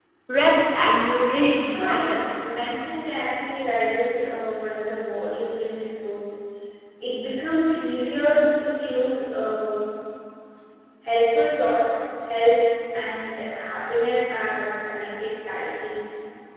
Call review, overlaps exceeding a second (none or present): none